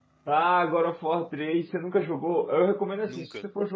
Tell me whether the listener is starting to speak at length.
No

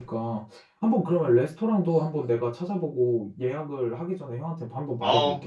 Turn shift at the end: Yes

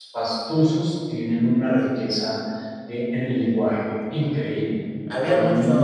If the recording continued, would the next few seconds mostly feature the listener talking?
Yes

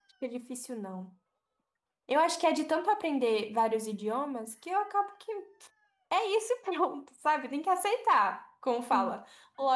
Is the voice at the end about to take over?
No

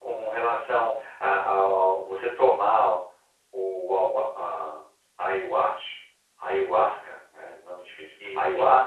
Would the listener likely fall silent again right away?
Yes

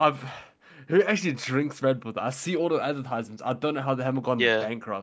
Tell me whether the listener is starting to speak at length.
Yes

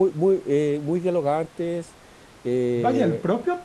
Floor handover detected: Yes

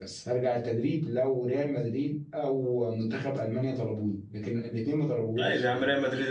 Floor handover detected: Yes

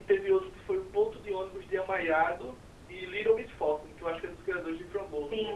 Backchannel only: No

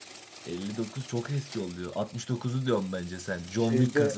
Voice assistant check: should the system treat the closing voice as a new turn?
Yes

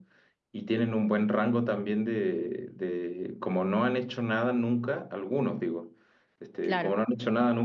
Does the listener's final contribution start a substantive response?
No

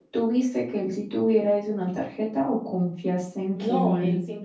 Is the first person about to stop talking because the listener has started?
Yes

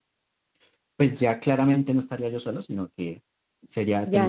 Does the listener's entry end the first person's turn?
Yes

